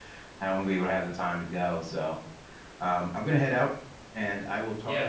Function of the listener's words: taking over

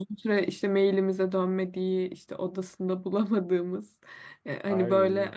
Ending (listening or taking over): listening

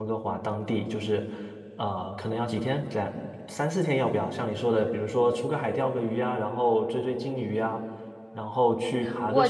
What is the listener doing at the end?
taking over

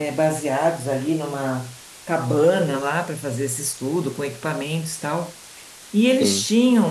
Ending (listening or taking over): listening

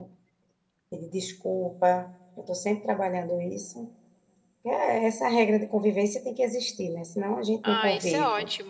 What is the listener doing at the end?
taking over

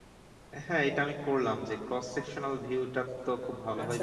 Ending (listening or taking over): taking over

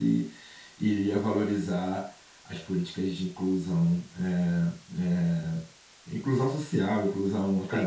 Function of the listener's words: taking over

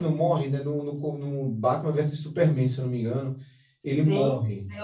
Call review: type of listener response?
taking over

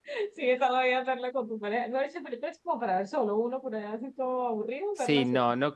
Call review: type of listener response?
taking over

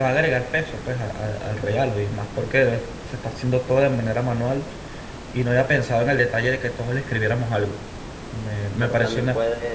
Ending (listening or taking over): taking over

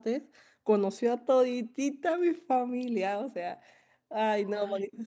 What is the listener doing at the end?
taking over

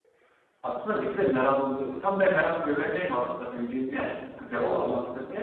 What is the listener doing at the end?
listening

